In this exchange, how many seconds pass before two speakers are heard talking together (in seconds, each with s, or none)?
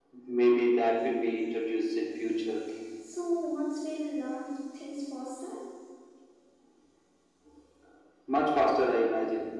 none